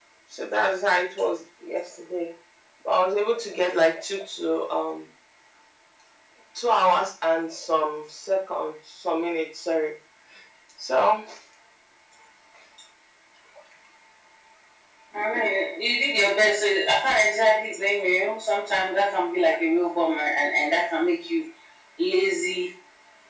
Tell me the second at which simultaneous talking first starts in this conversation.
none

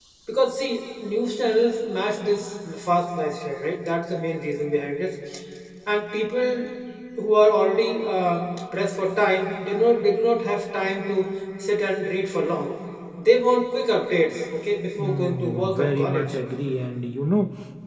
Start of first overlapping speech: 15 s

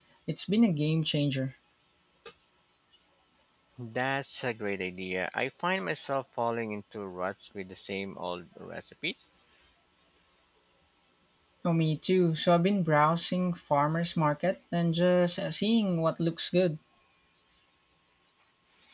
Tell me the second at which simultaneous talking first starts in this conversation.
none

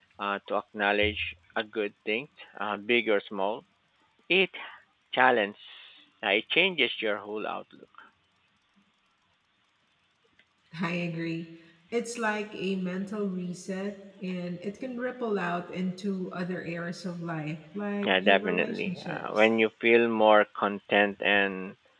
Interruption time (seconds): 18 s

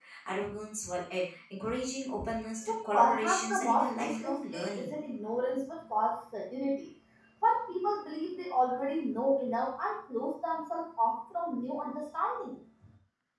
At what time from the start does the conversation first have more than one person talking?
3 s

